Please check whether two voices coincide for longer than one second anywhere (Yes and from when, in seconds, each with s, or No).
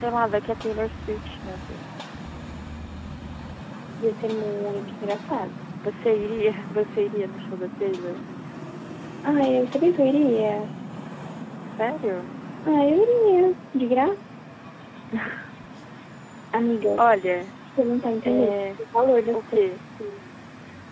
No